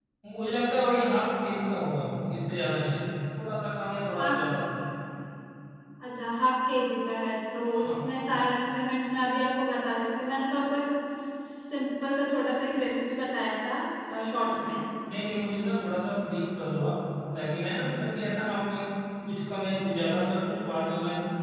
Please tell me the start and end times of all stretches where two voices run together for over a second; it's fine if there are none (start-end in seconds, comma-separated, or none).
none